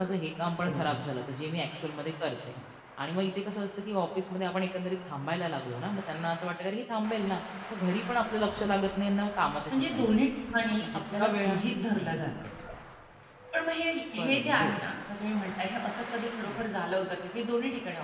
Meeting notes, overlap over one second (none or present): present